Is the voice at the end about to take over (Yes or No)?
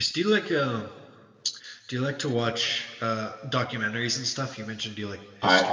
Yes